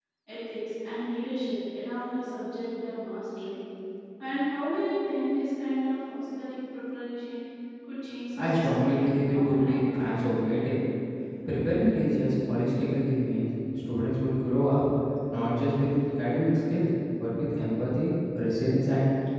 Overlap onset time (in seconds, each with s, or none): 8.4 s